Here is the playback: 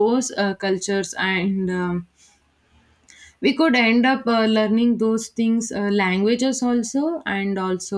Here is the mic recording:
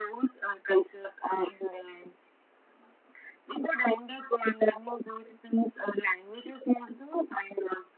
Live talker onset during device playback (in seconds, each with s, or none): none